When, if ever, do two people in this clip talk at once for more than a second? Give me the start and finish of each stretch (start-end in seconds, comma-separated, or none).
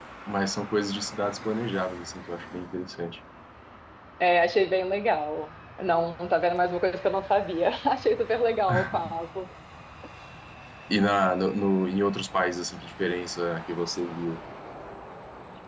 none